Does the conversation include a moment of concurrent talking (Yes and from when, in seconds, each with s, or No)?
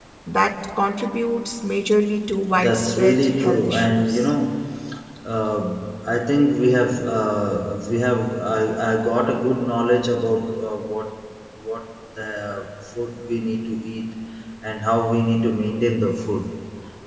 Yes, from 2.5 s